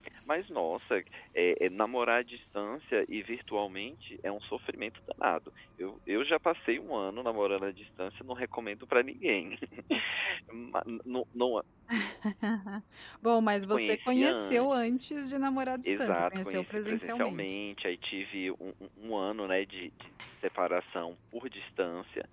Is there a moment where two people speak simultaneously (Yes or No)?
Yes